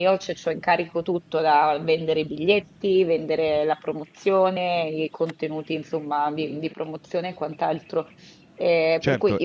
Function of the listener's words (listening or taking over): taking over